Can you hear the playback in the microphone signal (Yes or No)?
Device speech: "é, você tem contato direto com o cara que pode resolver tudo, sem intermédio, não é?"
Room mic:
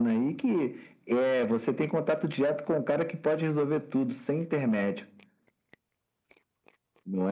Yes